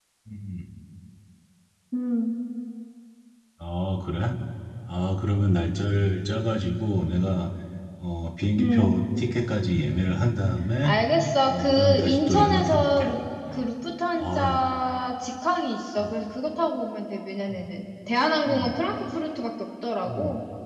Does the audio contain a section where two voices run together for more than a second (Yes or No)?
Yes